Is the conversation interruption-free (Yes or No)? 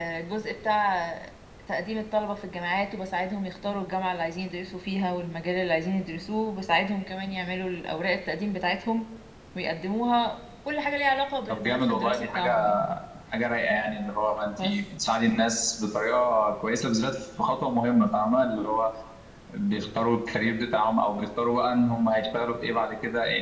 No